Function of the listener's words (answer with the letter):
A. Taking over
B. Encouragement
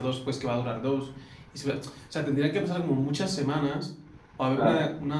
B